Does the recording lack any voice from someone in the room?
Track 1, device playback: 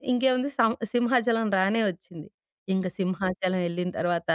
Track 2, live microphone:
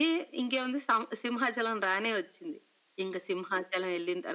Yes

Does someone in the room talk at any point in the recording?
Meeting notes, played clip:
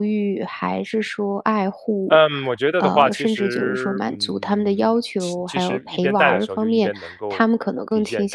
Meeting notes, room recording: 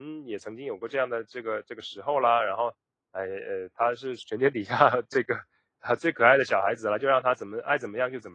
Yes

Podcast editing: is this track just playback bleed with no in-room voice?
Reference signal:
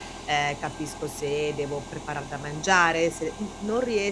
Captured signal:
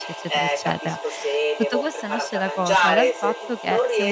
No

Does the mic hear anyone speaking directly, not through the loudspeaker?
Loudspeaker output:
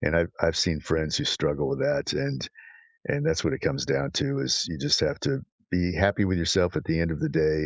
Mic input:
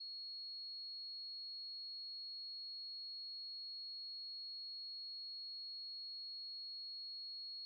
No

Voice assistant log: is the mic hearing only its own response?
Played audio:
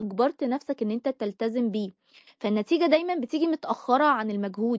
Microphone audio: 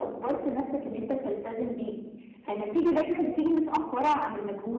Yes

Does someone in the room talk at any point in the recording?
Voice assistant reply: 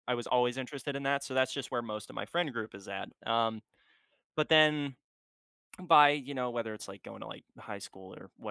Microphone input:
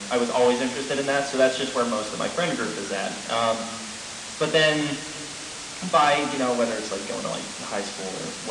No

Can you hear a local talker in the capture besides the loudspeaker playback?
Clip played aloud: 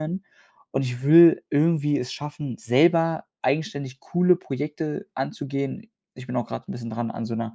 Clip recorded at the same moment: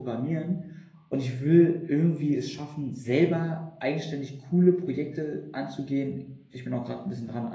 No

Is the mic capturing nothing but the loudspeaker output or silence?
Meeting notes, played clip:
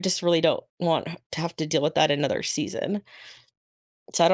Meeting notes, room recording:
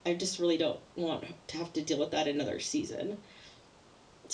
Yes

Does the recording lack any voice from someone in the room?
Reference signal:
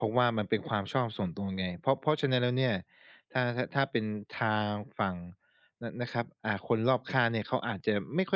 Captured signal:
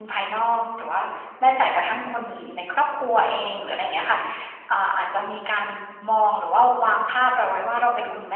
No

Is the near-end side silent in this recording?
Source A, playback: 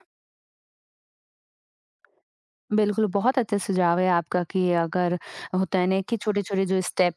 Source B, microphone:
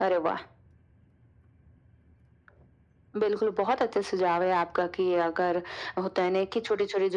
Yes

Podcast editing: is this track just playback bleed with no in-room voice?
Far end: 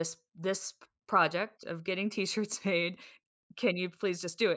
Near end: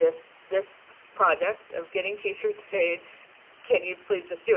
Yes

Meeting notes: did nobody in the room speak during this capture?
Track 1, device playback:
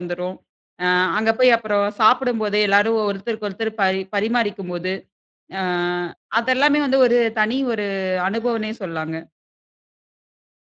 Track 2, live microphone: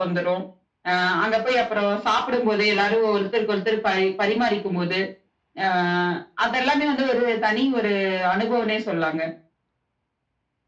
Yes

